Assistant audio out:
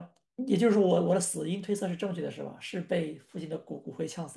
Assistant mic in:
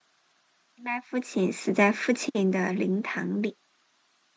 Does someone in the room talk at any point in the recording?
Yes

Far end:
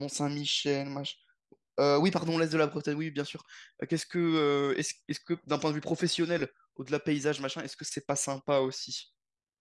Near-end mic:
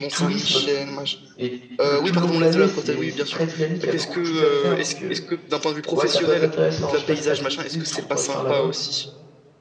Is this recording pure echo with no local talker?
No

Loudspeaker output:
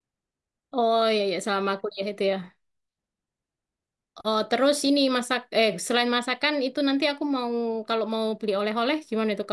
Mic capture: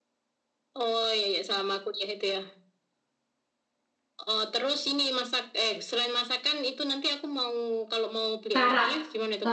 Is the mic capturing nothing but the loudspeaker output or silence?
No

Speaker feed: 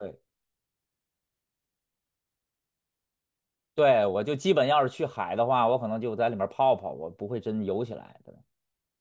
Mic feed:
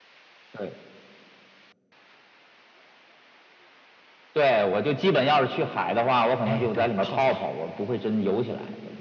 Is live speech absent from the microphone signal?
No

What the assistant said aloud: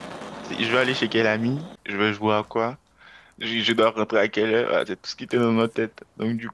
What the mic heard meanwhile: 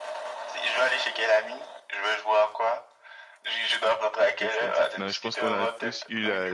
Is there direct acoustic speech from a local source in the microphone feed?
Yes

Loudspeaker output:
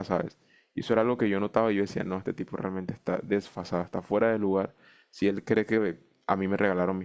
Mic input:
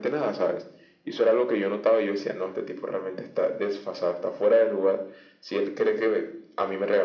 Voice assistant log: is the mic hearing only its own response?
Yes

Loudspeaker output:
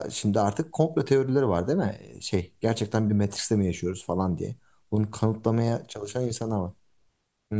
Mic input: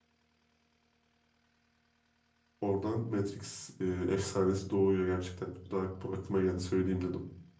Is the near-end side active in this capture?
Yes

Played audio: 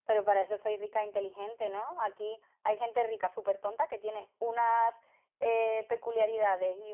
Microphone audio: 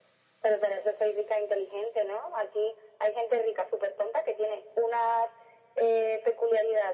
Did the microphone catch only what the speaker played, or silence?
Yes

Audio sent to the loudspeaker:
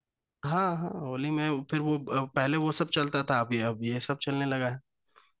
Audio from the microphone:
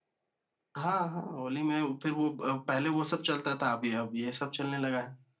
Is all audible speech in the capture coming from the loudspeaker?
Yes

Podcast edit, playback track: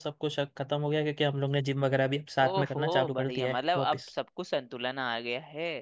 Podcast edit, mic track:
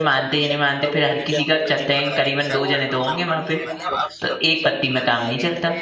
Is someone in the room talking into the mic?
Yes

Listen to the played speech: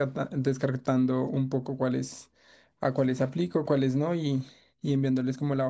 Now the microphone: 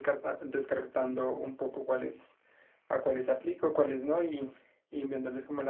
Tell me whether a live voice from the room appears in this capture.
No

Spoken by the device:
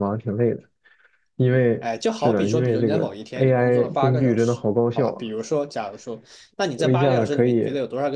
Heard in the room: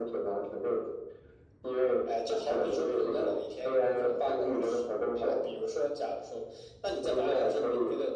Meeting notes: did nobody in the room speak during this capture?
Yes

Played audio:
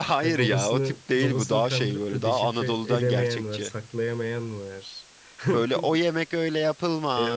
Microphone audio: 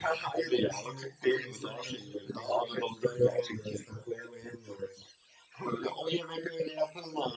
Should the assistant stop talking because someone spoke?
No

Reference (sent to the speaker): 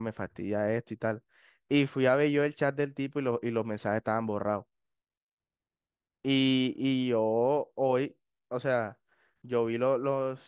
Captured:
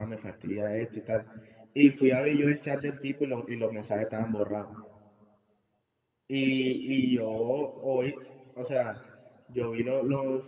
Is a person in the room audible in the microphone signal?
No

